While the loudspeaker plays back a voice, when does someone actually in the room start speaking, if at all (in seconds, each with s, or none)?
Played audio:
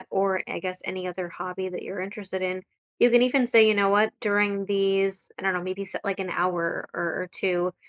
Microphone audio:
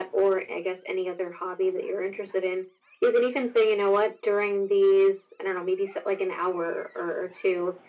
none